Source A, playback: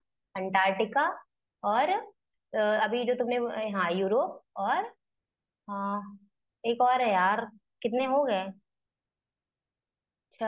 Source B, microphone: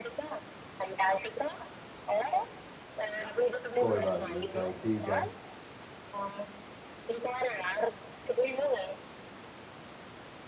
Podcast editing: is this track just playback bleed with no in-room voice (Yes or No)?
No